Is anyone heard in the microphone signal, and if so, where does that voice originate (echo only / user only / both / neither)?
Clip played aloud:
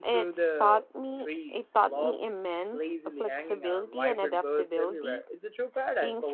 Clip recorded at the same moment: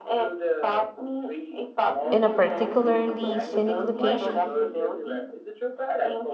both